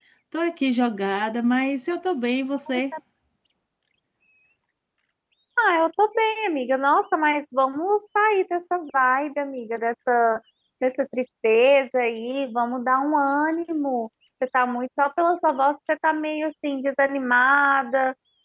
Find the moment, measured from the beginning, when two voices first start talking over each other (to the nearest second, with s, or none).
none